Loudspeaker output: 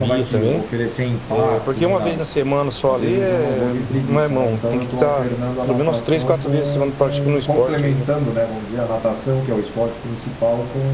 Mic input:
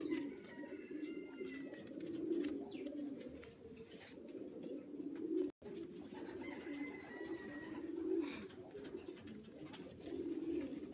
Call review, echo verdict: none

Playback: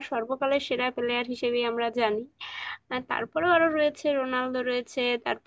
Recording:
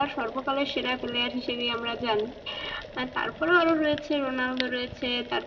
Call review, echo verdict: present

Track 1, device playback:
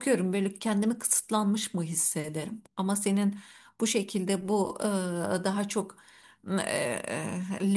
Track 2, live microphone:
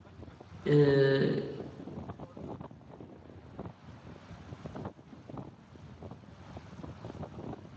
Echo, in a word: none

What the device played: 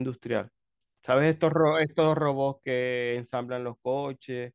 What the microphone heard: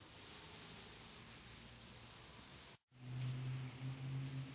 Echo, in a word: none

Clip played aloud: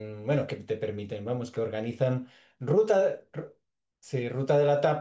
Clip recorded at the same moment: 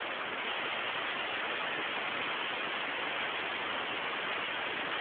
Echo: none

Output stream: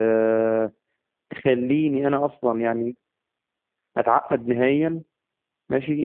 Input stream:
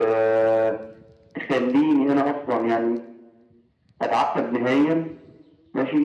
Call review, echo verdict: present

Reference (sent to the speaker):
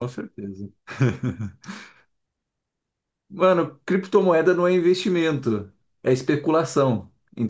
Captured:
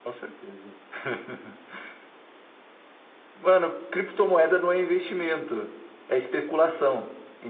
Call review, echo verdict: present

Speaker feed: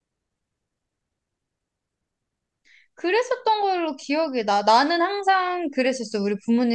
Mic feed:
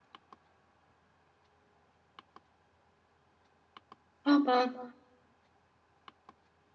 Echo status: none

